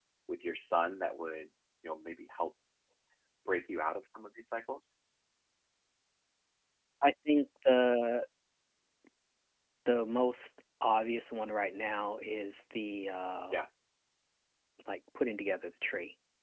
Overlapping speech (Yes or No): No